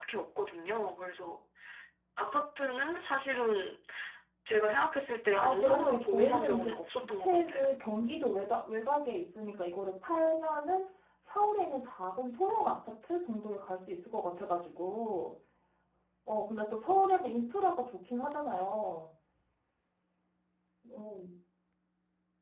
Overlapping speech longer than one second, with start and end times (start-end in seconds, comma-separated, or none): 5.4-7.6